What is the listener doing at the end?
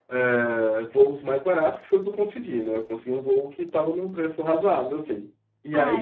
taking over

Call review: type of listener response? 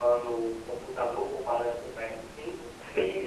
taking over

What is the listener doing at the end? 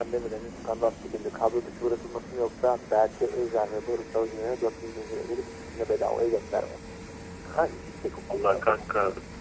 taking over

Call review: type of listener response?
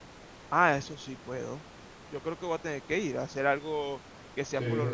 taking over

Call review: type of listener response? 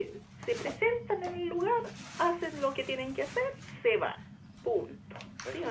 taking over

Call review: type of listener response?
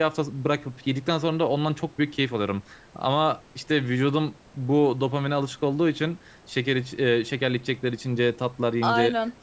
listening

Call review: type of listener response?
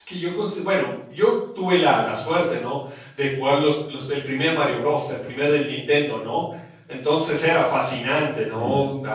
listening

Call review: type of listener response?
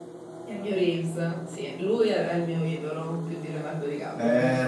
taking over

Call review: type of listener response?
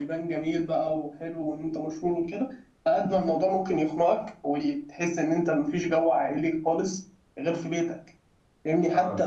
listening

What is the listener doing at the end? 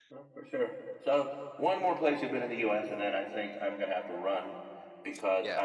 listening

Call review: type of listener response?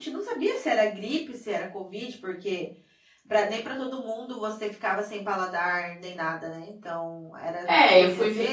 taking over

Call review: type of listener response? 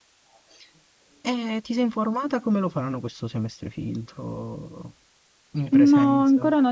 taking over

